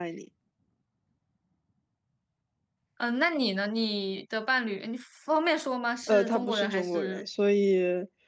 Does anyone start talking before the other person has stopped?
Yes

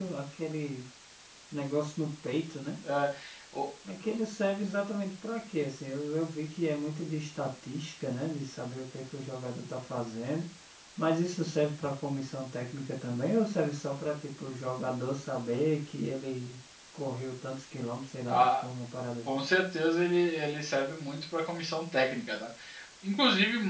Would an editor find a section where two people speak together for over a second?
No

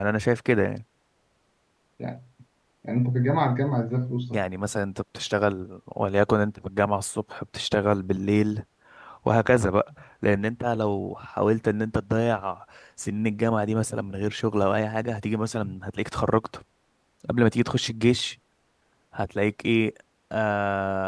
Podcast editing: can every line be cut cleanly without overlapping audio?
Yes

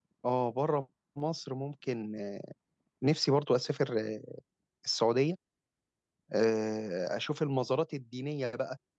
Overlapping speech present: No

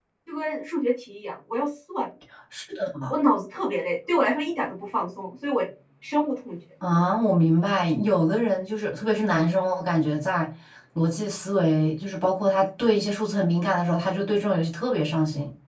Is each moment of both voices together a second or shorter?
Yes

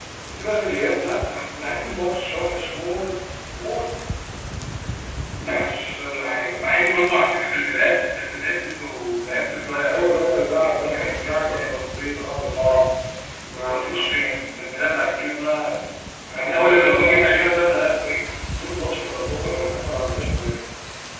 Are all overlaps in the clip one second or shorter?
No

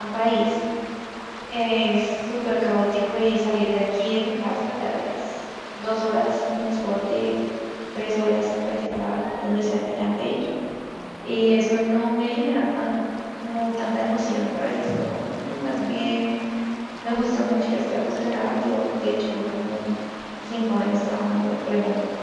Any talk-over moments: No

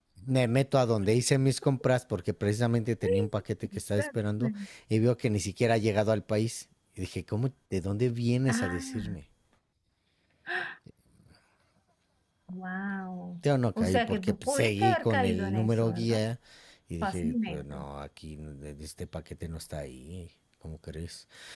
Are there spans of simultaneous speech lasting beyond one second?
Yes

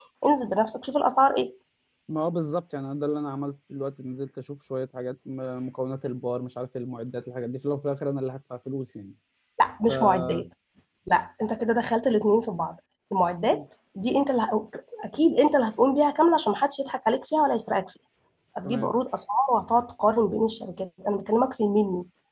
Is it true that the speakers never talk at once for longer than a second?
Yes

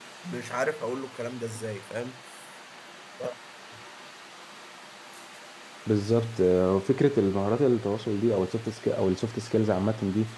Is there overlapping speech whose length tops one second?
No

